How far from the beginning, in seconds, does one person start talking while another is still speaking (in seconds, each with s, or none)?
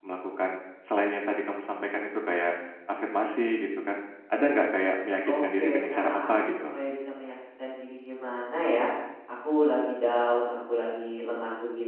5.2 s